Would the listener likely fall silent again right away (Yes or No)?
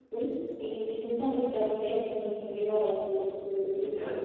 No